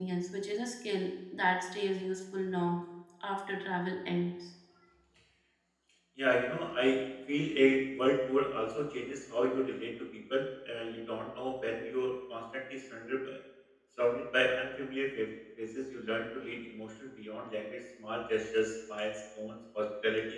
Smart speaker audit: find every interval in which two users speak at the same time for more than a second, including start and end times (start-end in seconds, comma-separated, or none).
none